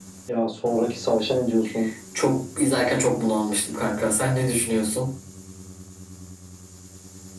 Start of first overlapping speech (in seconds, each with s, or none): none